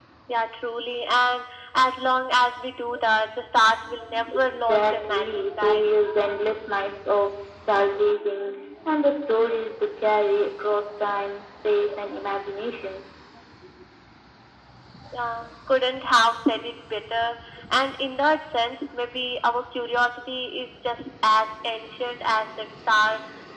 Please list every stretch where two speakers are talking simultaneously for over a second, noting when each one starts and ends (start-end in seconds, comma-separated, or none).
4.4-5.8